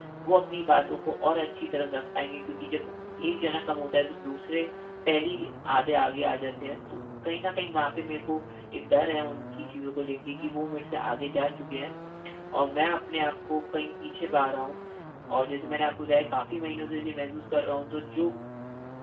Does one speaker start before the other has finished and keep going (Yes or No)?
No